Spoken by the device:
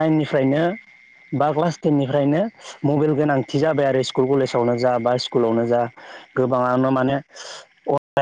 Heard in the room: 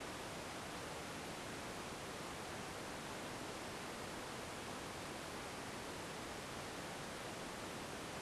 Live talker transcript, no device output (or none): none